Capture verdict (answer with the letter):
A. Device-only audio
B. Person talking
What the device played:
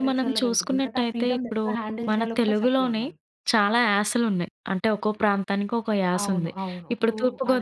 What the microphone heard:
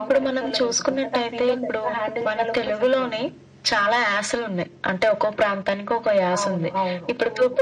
A